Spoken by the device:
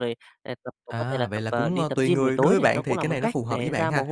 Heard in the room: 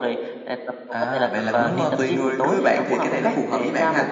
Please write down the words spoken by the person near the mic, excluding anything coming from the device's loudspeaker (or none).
Đó,